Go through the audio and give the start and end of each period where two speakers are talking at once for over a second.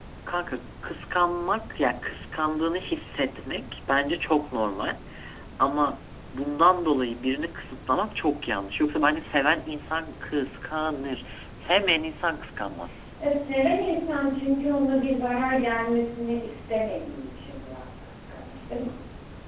none

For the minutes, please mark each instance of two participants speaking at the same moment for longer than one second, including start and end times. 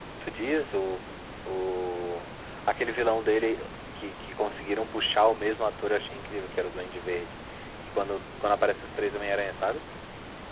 none

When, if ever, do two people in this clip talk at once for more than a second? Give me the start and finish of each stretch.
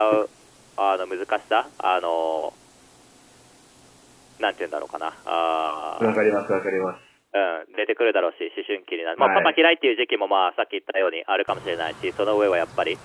none

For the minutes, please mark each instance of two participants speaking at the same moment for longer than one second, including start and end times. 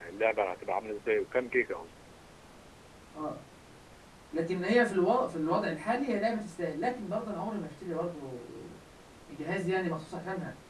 none

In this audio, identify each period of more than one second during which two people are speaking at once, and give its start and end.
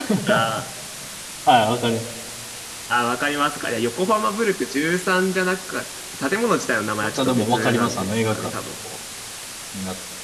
7.0-8.6

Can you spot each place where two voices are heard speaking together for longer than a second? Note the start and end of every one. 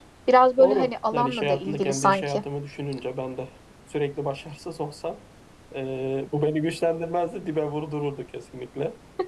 0.6-2.4

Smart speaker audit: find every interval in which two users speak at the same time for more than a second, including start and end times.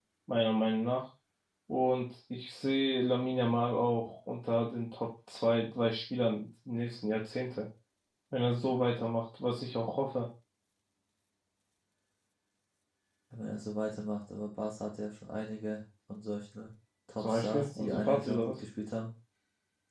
17.2-18.6

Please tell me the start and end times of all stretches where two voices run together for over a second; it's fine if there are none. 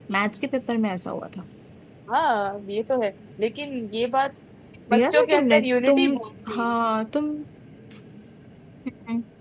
4.9-6.1

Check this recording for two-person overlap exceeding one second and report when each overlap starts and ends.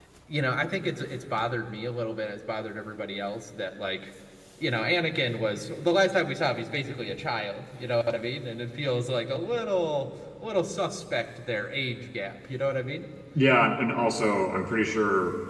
none

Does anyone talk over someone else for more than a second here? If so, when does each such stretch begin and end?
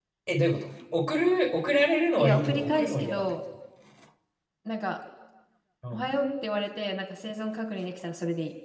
2.2-3.4

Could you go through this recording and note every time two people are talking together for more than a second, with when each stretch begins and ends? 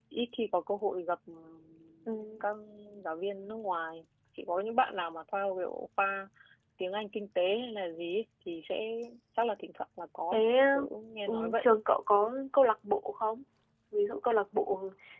none

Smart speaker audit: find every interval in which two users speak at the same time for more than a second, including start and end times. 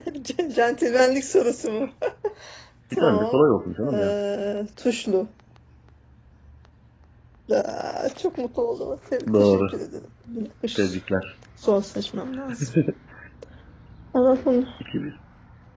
none

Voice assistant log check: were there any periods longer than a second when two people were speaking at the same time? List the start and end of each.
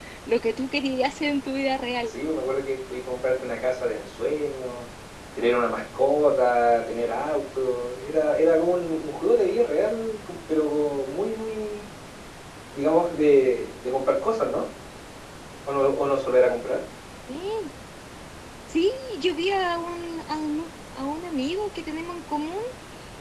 none

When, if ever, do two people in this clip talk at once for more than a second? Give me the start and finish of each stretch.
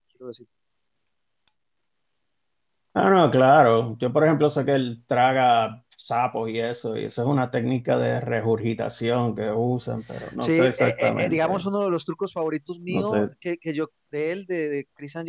10.4-11.7

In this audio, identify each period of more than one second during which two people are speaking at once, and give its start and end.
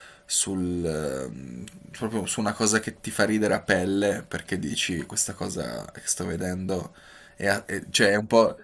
none

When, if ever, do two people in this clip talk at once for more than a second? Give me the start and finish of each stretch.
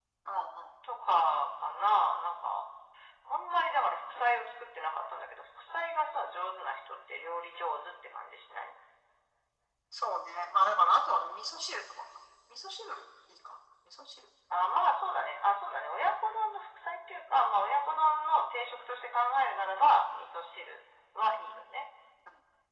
none

